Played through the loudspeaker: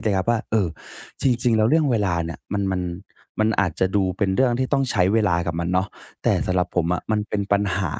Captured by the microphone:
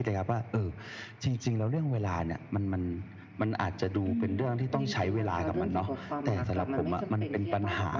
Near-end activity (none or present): present